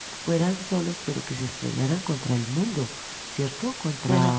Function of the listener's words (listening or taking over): listening